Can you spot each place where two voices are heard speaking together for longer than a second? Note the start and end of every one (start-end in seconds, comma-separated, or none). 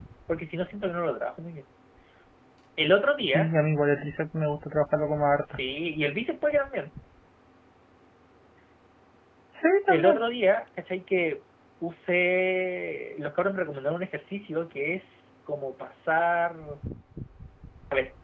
none